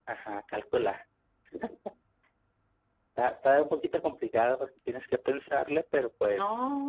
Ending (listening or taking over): taking over